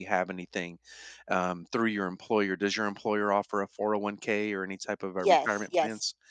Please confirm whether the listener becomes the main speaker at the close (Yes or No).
Yes